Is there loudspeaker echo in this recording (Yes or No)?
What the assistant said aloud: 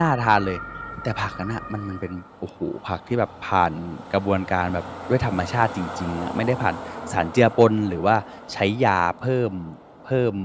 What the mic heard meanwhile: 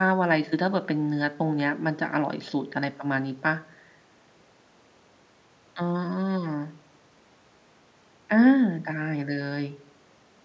No